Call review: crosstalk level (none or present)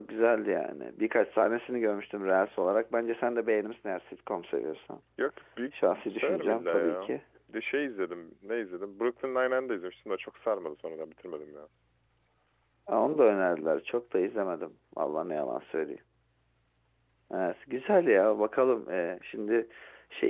present